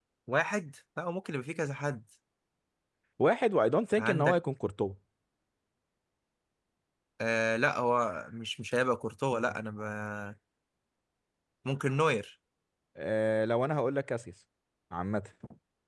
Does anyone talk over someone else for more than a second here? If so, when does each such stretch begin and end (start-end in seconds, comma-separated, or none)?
none